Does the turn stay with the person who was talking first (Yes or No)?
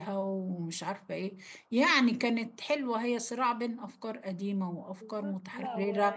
No